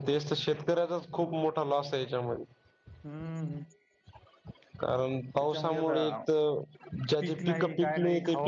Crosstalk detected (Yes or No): Yes